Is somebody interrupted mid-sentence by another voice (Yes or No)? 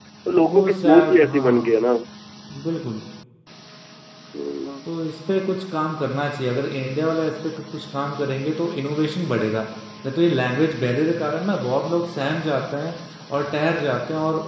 Yes